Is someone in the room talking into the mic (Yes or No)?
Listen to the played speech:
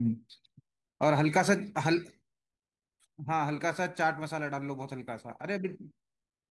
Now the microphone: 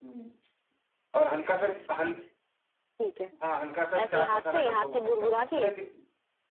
Yes